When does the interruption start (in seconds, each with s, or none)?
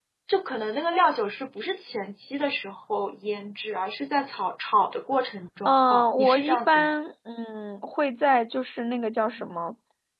5.7 s